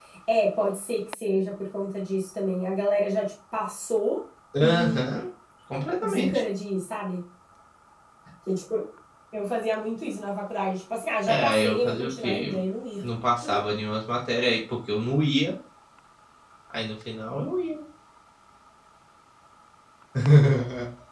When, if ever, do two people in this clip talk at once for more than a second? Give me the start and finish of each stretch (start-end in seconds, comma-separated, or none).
11.3-12.6